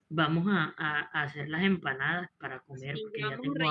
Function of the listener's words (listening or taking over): taking over